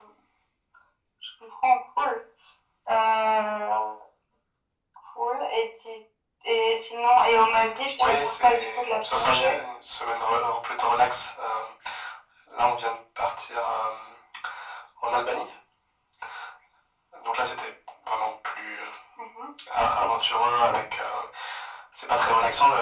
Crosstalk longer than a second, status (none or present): present